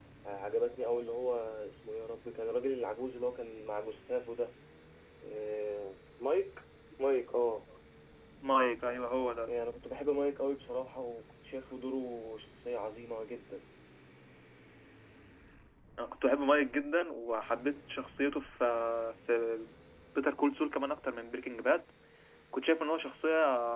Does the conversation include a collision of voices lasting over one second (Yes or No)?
No